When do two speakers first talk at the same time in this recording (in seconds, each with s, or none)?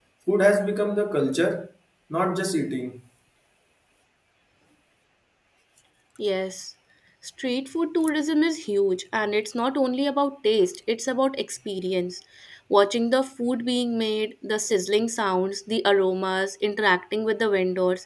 none